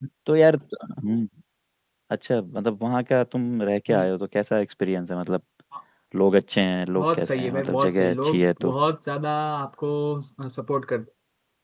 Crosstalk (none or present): present